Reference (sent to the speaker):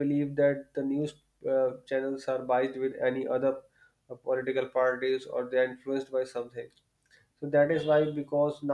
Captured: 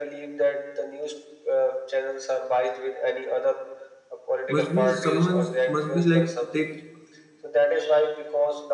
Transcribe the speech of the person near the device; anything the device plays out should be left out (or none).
must be someone's must be like take